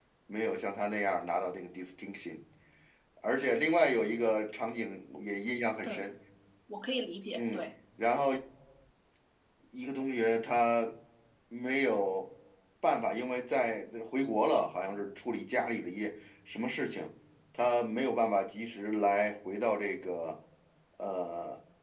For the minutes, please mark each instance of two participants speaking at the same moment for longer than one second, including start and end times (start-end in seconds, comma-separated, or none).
none